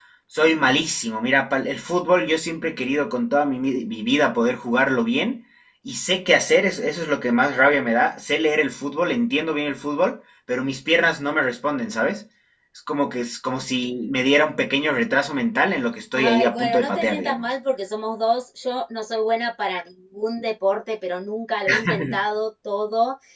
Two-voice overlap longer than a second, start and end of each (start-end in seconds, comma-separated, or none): 16.1-17.5